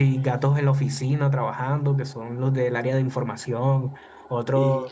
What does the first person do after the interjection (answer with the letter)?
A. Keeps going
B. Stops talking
A